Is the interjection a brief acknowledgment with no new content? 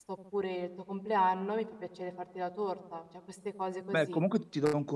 No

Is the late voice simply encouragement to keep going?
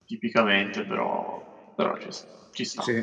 No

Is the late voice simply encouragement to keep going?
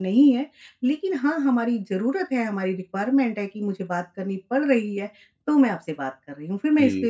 No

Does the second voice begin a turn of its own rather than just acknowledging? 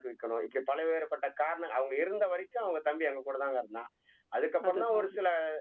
No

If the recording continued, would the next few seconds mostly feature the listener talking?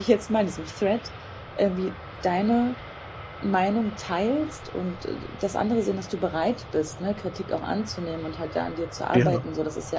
No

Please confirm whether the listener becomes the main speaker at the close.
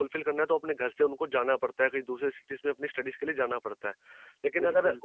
No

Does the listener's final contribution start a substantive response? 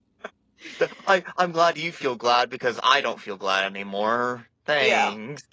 Yes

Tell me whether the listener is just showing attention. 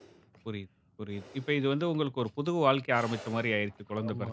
No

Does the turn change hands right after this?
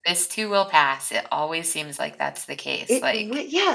Yes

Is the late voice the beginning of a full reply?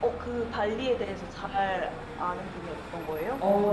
Yes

